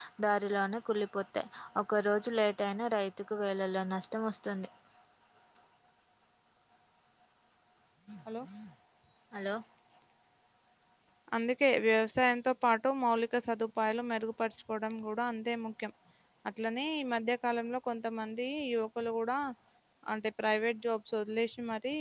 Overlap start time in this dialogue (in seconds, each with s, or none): none